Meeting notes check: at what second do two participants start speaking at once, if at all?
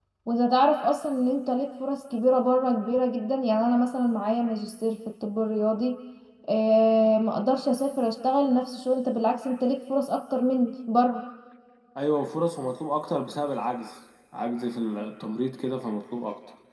none

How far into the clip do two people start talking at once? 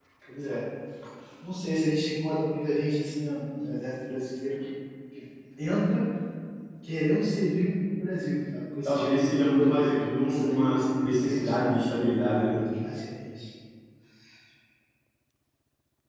9 s

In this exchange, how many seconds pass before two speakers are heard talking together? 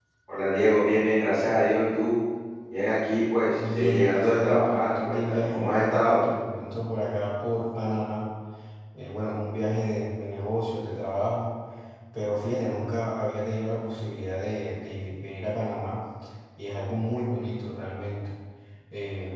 4 s

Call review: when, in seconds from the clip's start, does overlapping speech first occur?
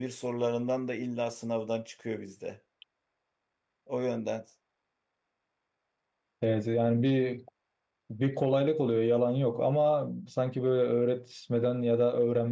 none

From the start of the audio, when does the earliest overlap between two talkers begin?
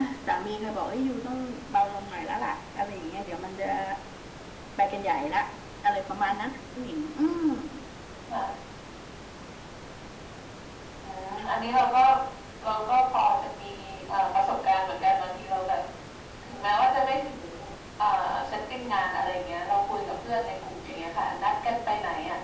none

